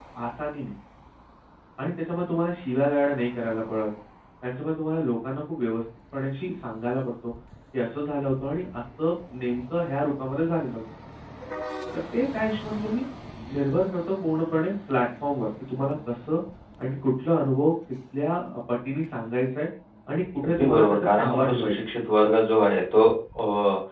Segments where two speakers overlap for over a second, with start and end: 20.4-21.7

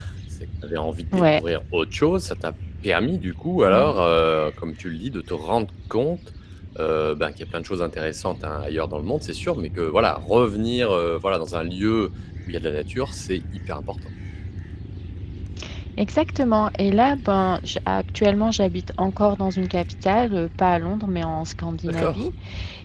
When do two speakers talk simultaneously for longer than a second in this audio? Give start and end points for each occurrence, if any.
none

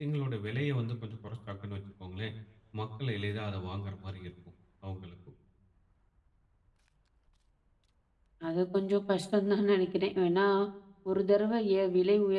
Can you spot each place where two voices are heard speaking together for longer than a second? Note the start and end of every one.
none

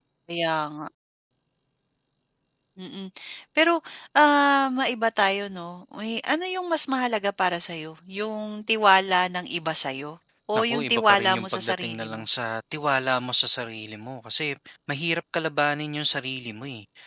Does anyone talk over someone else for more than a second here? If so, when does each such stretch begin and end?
10.6-12.2

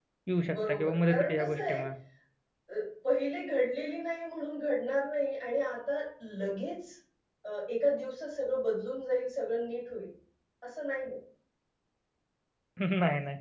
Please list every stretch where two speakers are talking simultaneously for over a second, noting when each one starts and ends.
0.5-1.8

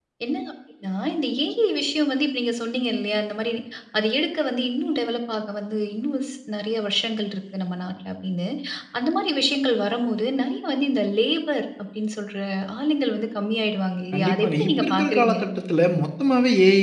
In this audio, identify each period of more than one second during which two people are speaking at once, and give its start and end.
14.1-15.4

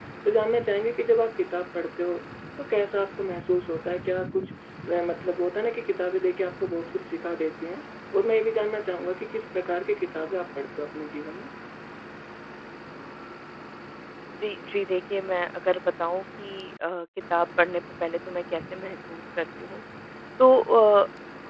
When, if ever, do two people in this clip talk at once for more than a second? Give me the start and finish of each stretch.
none

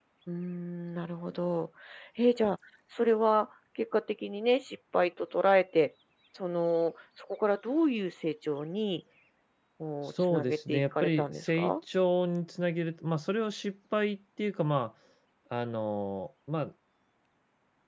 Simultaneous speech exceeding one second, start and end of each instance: 10.1-11.7

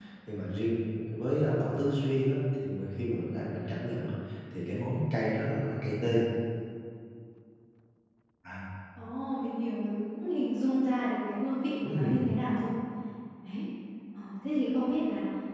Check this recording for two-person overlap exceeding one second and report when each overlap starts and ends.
none

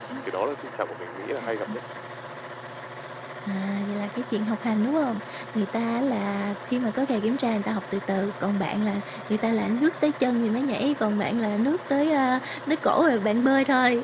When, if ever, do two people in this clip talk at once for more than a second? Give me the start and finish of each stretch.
none

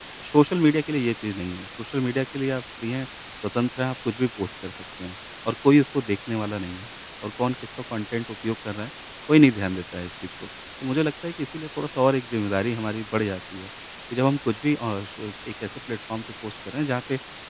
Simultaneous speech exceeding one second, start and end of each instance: none

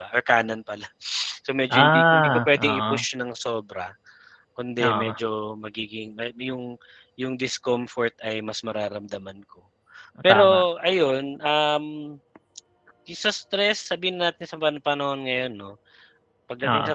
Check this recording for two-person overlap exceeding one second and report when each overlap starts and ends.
1.8-3.0

